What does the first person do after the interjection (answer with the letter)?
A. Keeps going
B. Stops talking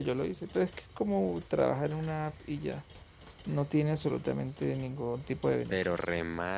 B